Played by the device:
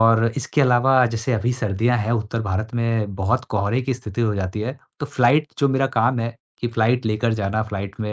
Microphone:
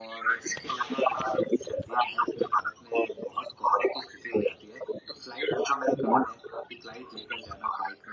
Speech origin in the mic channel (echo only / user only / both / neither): echo only